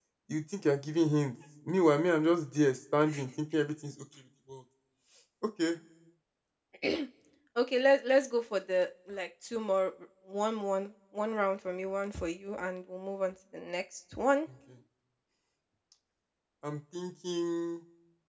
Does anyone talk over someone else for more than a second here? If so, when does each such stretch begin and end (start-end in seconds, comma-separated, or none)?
none